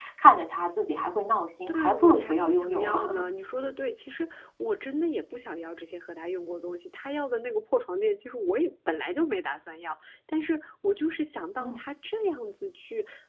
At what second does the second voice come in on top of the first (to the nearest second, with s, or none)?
2 s